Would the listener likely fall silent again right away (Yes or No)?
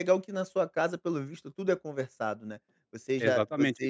No